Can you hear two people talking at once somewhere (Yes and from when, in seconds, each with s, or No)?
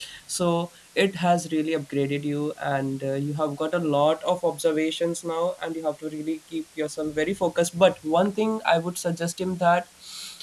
No